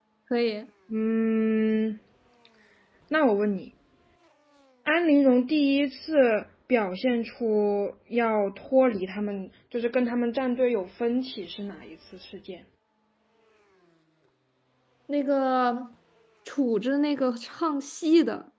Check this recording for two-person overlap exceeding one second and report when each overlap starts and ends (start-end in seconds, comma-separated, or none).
none